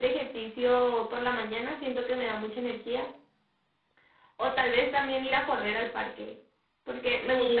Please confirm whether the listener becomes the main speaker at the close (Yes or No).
No